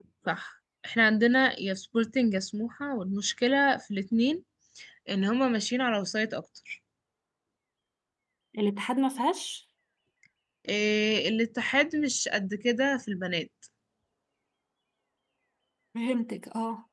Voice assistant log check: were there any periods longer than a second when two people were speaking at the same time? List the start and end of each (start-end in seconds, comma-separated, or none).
none